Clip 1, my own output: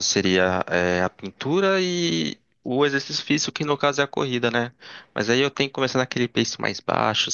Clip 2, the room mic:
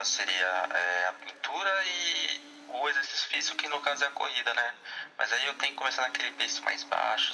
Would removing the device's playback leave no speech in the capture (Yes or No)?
Yes